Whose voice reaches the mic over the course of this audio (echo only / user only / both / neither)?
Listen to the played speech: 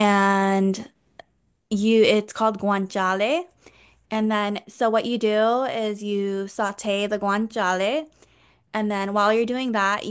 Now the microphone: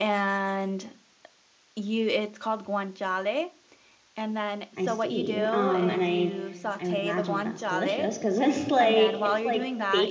both